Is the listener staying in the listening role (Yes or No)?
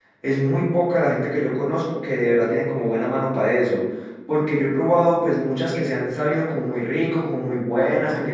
Yes